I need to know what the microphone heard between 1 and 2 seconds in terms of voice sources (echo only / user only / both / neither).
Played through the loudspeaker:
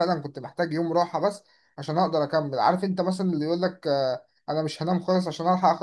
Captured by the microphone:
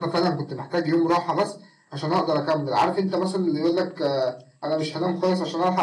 echo only